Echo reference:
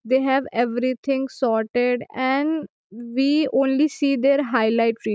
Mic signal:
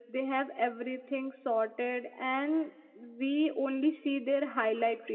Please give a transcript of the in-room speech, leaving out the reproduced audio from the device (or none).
none